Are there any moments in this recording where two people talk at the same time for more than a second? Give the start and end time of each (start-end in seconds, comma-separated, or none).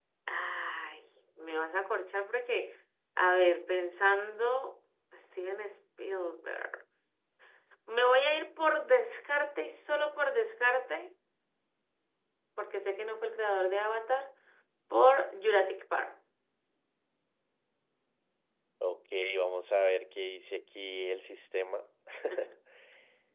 none